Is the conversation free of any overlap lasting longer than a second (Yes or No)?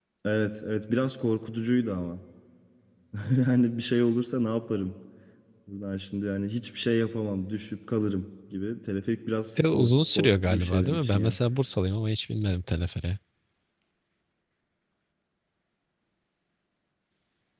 No